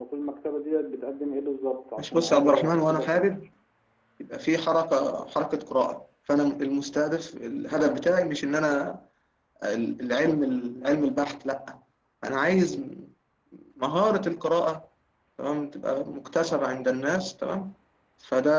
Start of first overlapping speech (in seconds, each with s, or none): 2.0 s